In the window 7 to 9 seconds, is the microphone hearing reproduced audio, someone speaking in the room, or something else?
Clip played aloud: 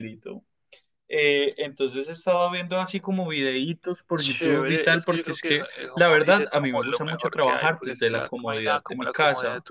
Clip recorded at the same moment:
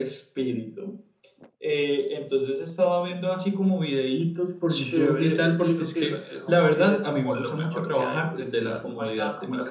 echo only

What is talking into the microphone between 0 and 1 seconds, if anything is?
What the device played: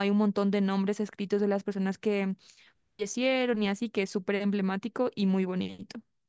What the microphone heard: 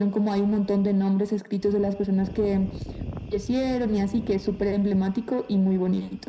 echo only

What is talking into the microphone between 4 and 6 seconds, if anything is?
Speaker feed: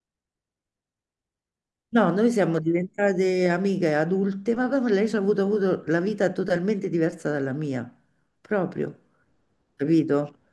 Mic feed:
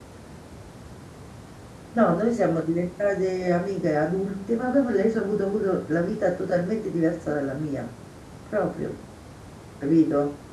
echo only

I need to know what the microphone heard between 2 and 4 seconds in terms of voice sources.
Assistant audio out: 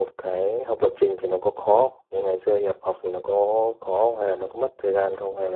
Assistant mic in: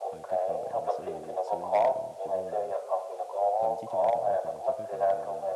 both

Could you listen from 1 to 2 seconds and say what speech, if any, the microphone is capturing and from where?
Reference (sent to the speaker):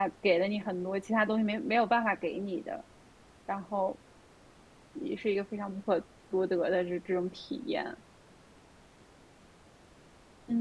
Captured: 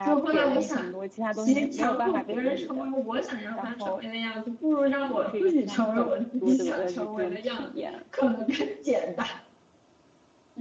both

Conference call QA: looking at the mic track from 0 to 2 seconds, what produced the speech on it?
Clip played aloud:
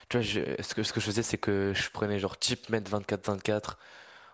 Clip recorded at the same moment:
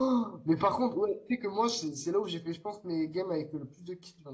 user only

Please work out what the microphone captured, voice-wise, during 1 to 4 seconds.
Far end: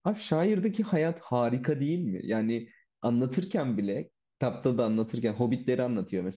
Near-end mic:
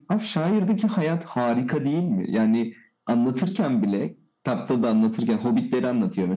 echo only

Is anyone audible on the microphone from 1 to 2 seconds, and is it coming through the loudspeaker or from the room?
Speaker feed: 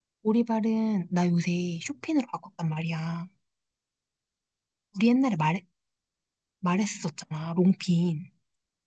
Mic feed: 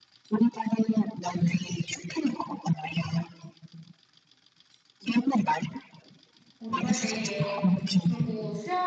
echo only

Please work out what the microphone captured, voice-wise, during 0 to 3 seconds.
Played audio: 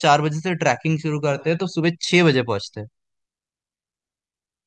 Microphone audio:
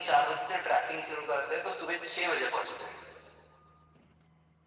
echo only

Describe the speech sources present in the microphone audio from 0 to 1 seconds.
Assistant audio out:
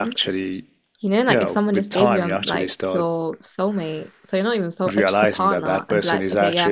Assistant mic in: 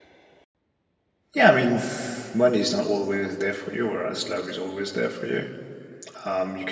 neither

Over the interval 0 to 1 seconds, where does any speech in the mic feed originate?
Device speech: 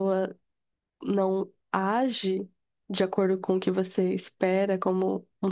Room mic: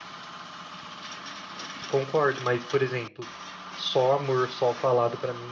neither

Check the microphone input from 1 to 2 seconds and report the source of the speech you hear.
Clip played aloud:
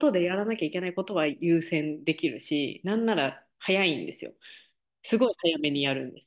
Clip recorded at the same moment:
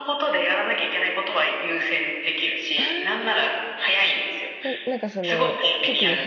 echo only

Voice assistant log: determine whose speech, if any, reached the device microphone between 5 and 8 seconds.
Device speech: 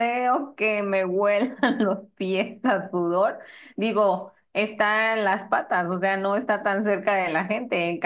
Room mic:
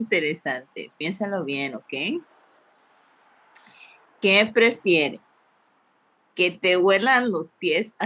user only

